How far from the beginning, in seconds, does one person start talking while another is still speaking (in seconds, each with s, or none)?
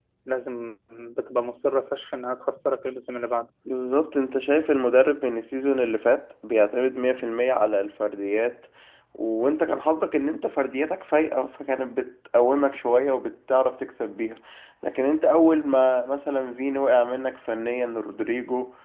none